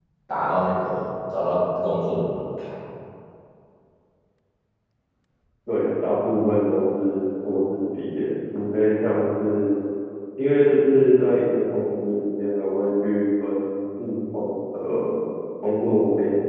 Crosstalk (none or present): none